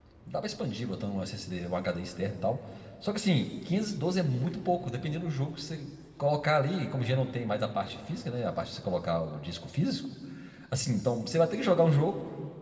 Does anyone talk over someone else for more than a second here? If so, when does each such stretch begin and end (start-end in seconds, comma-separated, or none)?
none